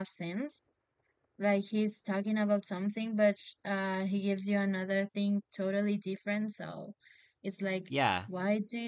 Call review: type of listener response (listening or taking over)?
listening